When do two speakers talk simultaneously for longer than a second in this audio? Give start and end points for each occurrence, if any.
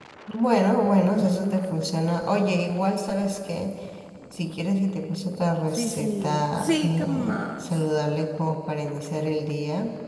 5.8-7.8

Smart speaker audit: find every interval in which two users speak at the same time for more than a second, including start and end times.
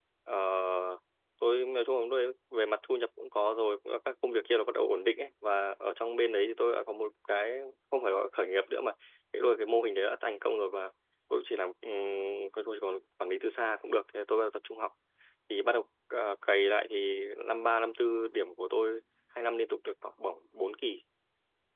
none

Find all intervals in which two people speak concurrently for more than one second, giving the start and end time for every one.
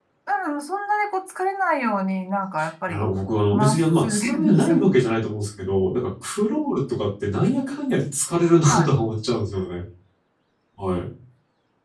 3.5-4.8

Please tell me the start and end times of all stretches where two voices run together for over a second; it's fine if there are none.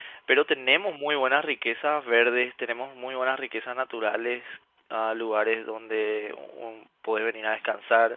none

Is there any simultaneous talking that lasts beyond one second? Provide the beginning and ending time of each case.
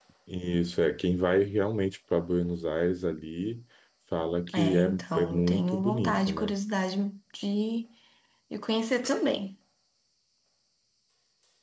4.5-6.5

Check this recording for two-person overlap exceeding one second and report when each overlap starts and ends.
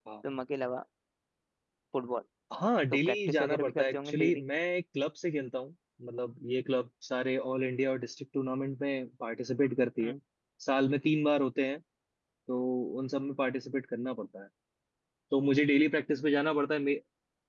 3.1-4.4

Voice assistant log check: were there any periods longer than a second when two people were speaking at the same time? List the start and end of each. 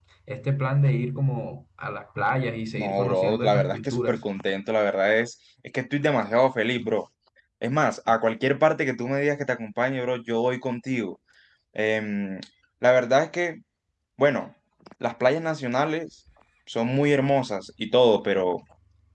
2.8-4.2

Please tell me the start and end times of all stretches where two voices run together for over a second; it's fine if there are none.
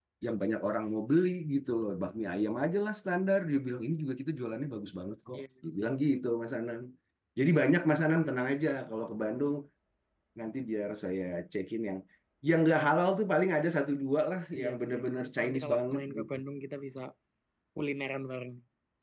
14.6-16.4

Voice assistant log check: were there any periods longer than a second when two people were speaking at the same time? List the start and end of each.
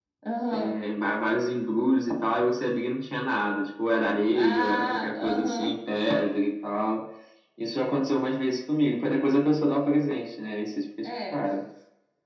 4.3-5.7

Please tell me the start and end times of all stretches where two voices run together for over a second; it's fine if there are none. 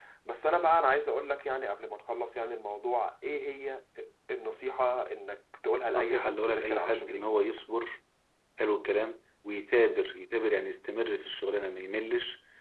5.9-7.4

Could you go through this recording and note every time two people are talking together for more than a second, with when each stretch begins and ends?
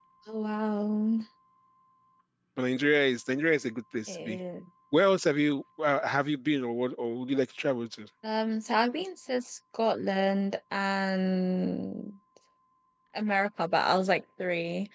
none

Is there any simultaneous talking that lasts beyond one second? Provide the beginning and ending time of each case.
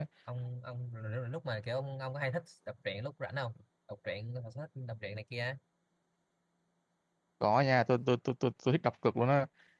none

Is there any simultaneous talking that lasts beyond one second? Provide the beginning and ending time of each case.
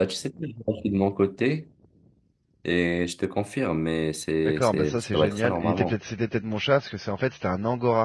4.4-5.9

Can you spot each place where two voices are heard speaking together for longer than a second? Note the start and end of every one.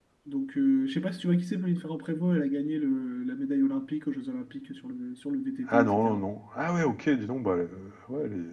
none

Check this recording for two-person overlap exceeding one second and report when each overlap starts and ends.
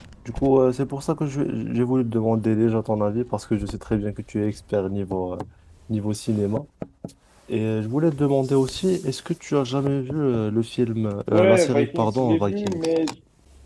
11.3-12.8

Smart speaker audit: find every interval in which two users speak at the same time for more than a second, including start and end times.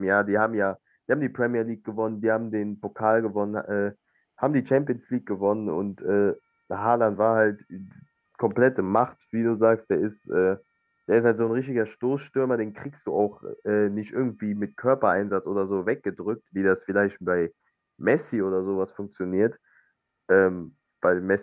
none

